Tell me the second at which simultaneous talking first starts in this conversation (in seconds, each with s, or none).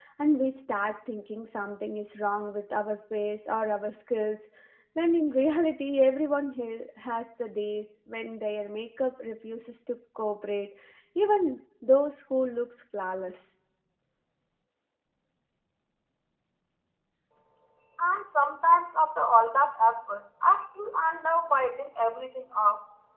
none